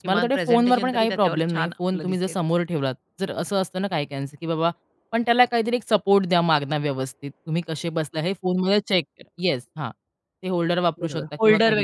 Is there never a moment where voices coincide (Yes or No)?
No